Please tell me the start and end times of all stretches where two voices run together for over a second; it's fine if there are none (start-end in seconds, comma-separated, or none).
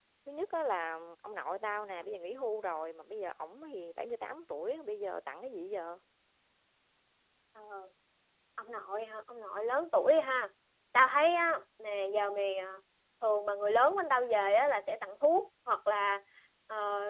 none